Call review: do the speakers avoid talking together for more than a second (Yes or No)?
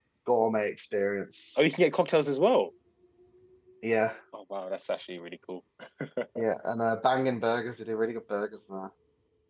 Yes